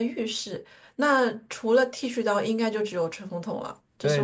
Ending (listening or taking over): taking over